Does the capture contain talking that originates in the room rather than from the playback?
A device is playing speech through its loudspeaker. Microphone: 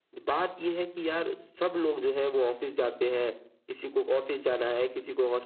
No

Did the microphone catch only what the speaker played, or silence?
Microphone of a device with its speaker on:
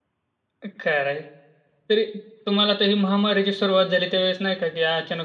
No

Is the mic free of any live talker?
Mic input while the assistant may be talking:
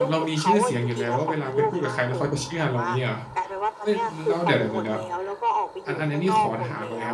No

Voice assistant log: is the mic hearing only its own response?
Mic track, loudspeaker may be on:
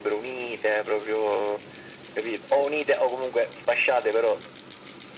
Yes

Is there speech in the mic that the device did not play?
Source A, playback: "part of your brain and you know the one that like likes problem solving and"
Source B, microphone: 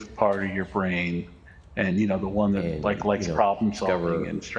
Yes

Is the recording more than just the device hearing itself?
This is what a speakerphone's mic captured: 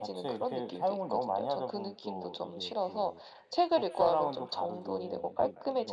No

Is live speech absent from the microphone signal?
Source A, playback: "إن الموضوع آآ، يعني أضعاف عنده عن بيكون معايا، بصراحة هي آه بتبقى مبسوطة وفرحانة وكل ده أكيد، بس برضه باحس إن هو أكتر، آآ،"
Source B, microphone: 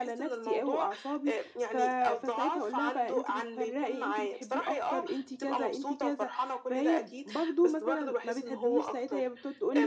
No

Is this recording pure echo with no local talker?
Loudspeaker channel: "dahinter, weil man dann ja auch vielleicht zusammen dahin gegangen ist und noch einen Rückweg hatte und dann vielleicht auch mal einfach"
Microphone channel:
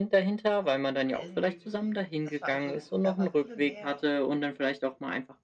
No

